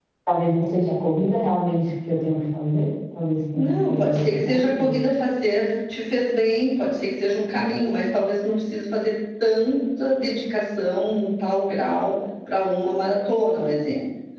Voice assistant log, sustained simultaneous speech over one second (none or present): present